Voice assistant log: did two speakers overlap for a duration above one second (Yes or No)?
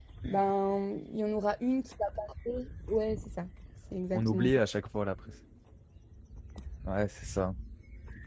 No